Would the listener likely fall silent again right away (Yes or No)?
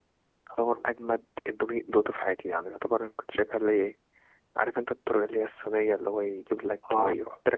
Yes